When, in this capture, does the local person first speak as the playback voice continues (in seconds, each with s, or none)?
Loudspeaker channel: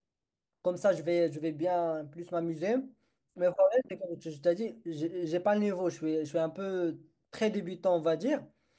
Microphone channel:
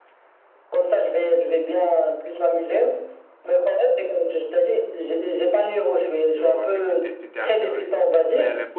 6.3 s